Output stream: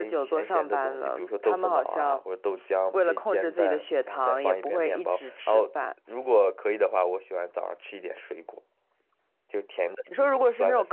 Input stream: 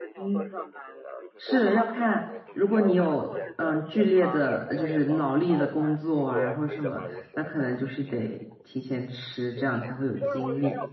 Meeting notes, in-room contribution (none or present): present